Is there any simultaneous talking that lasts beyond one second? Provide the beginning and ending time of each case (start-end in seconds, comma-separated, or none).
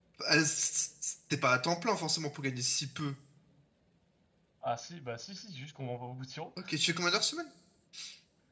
none